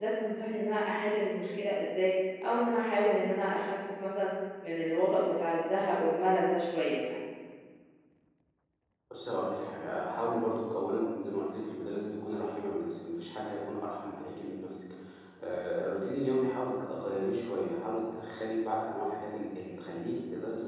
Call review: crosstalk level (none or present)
none